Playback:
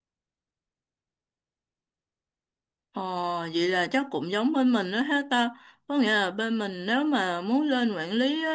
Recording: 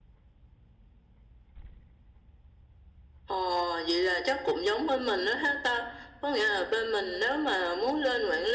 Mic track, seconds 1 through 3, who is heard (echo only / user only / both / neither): neither